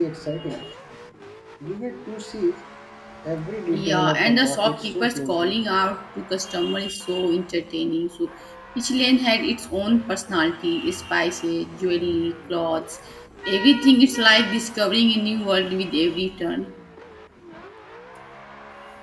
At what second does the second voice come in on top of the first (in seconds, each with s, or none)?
3.7 s